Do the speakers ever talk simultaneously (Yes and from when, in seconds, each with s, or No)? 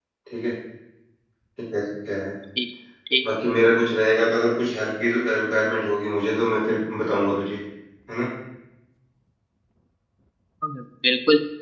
No